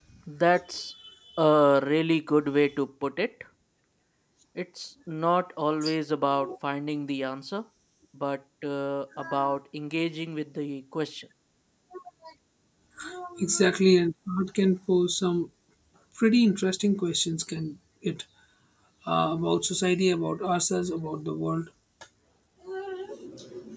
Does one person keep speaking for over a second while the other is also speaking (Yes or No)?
No